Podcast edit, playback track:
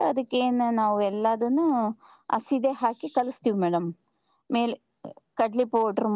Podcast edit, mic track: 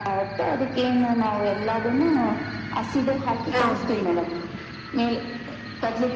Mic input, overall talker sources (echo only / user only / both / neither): both